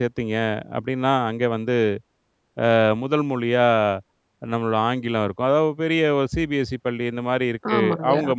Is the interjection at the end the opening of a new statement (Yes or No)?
No